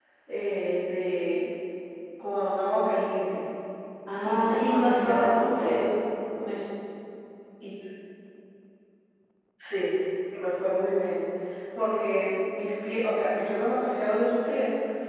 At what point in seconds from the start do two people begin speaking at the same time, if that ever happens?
4 s

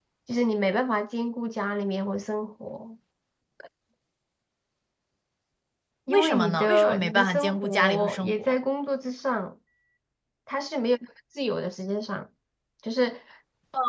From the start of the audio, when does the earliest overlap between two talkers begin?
6 s

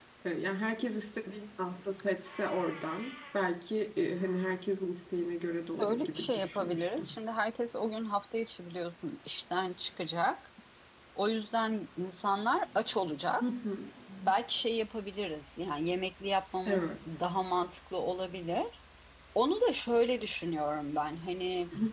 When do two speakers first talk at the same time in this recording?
6 s

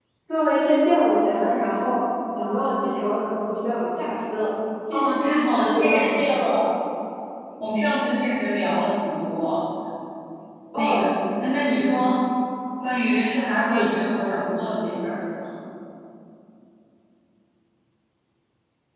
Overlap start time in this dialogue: 5 s

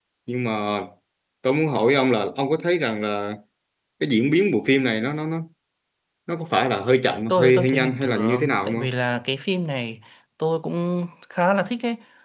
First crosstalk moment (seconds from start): 7 s

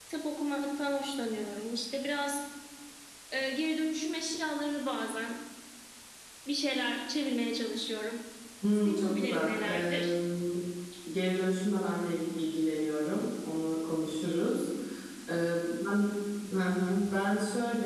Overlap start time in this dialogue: 9 s

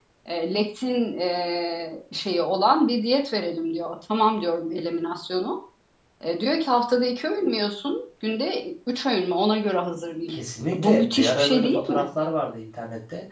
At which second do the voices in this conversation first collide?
11 s

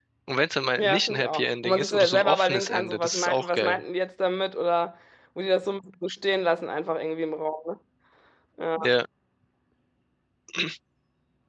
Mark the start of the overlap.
1 s

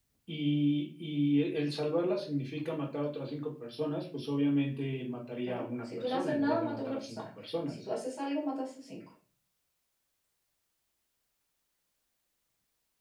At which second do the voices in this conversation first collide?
5 s

